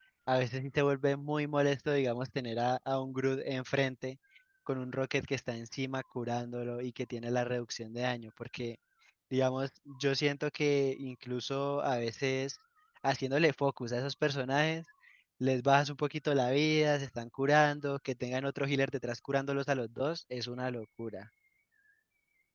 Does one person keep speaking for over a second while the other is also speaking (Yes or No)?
No